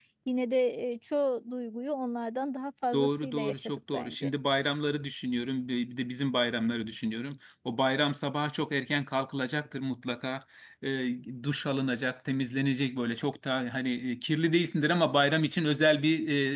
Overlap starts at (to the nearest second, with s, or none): 3 s